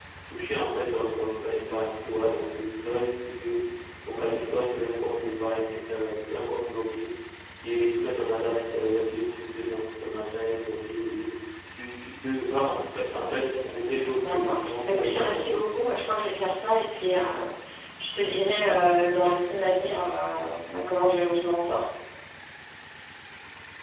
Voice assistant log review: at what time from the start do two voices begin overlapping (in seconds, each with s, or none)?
14.2 s